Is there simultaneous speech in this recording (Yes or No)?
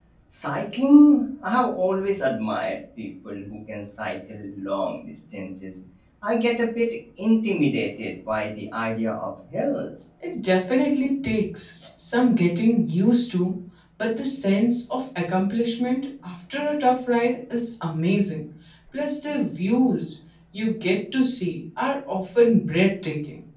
No